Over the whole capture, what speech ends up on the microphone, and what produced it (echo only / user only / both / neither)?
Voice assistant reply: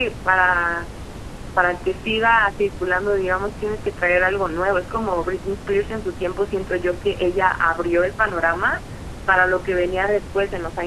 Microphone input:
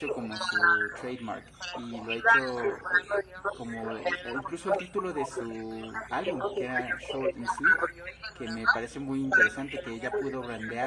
both